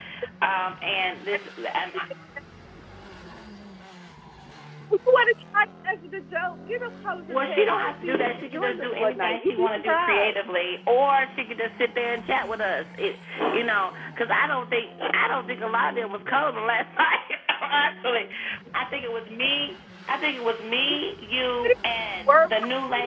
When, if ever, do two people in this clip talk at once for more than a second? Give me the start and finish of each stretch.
7.3-10.5

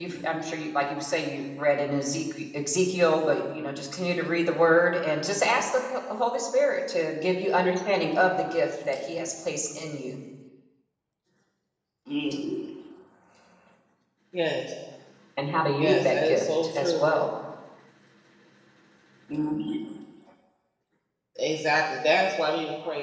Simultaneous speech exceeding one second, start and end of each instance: 15.8-17.0

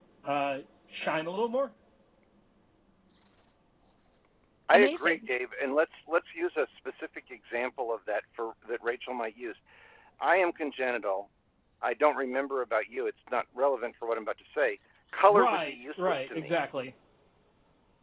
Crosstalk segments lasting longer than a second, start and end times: 15.3-16.5

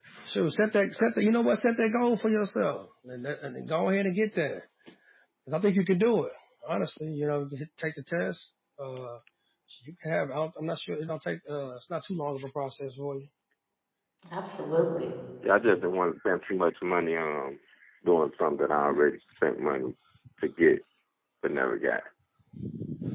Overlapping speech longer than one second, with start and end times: none

